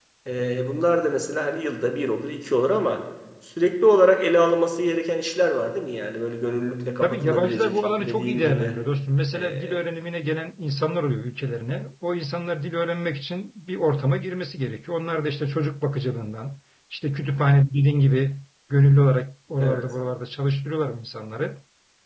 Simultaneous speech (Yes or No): Yes